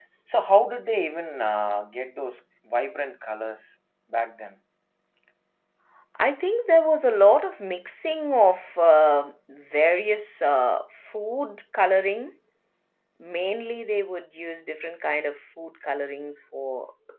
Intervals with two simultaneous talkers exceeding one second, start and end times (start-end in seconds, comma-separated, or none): none